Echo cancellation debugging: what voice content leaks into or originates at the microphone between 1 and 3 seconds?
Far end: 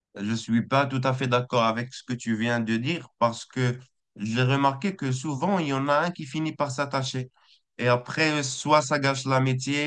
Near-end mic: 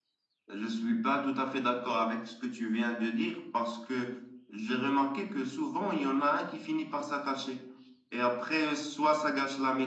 echo only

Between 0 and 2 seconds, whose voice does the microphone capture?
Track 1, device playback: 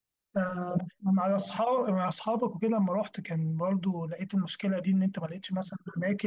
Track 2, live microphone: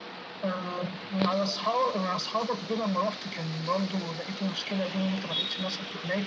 echo only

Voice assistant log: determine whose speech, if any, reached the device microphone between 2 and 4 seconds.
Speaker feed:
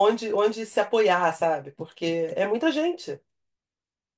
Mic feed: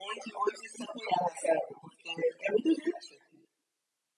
echo only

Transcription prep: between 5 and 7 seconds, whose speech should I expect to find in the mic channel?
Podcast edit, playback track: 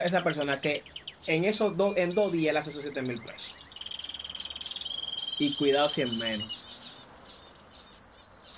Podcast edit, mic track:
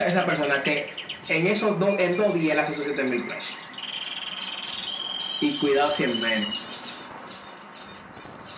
echo only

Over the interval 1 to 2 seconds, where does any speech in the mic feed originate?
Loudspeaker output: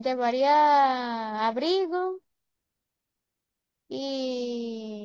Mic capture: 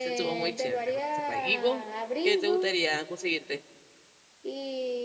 both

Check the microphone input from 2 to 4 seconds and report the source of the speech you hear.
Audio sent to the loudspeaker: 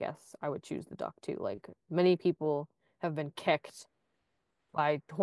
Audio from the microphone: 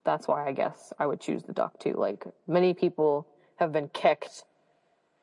echo only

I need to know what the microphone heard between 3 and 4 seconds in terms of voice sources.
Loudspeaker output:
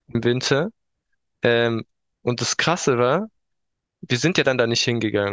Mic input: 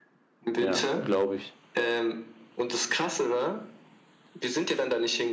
echo only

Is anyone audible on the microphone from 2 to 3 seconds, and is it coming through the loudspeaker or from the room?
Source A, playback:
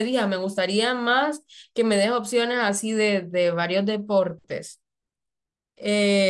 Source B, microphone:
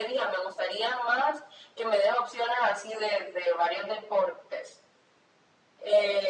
echo only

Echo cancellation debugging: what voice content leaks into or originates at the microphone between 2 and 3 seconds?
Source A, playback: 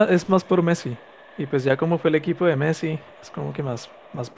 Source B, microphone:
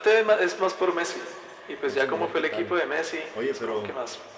both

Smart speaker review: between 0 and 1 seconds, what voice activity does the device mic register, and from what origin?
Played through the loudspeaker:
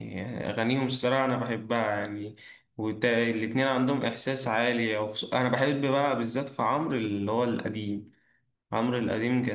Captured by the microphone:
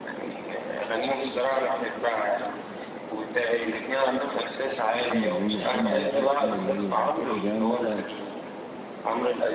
echo only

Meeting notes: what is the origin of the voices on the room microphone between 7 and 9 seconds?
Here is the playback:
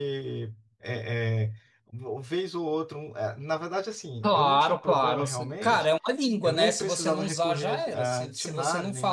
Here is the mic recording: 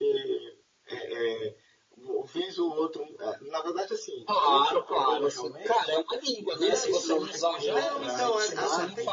both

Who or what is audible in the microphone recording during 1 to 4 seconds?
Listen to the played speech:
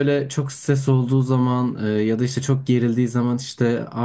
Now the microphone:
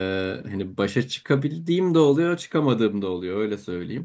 user only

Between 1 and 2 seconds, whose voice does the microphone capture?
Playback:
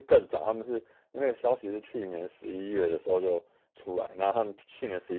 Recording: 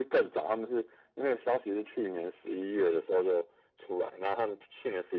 echo only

